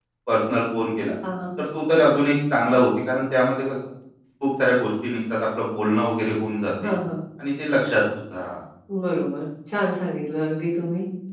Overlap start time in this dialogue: none

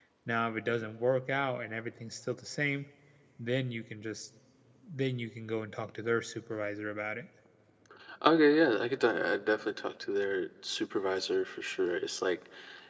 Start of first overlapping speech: none

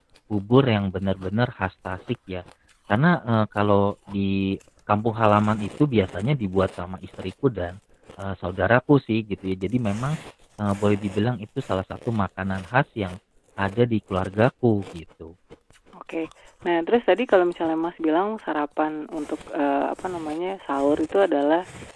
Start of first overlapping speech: none

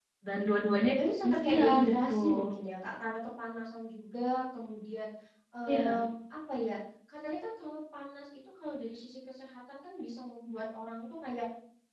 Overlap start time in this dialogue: 1.2 s

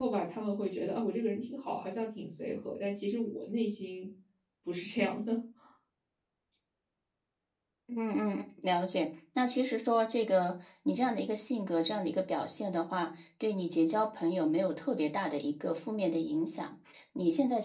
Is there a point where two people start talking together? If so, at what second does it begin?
none

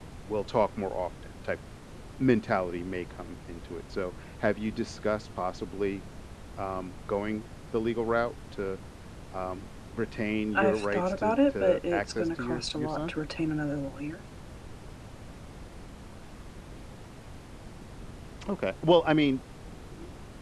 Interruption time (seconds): 10.5 s

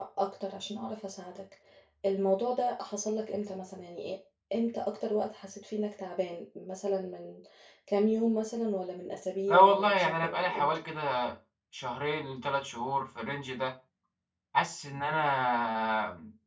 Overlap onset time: 9.5 s

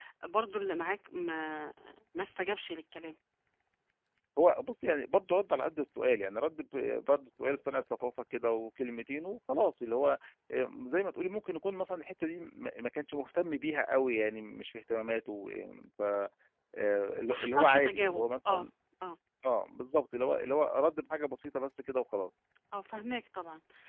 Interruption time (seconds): 17.3 s

